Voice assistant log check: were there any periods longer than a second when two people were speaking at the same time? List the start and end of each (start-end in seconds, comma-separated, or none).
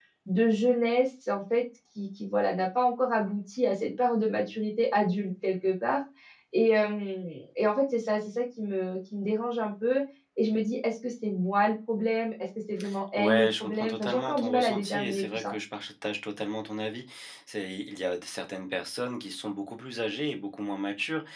13.2-15.5